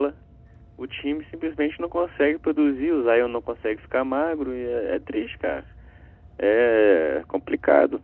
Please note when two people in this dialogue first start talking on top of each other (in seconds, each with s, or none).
none